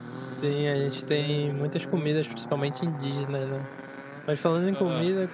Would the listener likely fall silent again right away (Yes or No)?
Yes